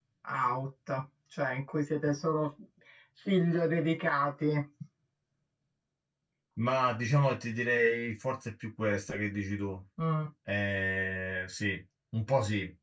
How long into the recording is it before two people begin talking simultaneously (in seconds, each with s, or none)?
none